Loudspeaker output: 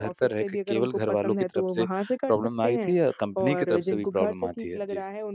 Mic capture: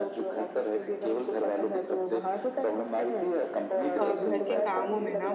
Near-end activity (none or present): present